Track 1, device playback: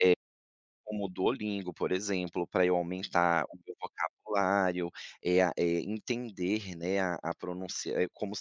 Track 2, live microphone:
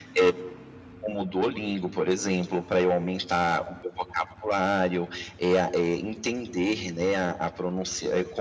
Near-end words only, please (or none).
none